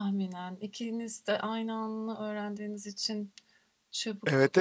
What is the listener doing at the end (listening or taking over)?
taking over